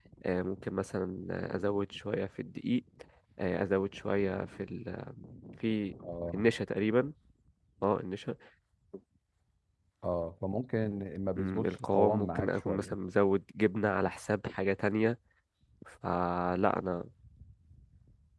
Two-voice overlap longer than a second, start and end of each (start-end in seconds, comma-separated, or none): 11.4-12.9